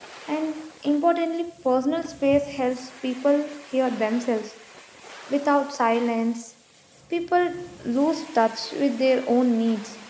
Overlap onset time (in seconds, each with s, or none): none